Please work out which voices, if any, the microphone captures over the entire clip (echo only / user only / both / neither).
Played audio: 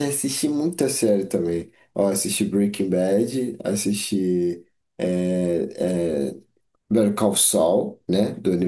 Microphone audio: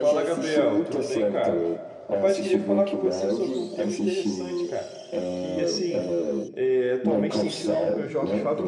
both